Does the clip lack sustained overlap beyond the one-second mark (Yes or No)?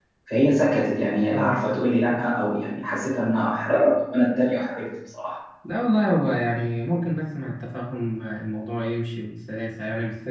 Yes